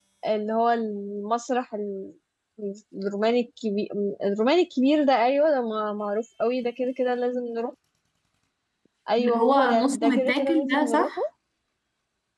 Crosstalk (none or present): present